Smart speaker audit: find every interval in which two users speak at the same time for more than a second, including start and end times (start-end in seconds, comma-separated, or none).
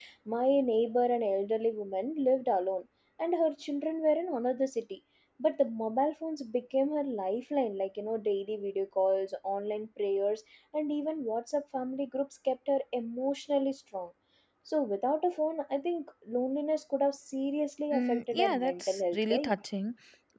17.9-19.5